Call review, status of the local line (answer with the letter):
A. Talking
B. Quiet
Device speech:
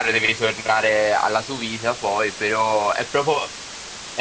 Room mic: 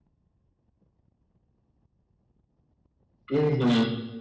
A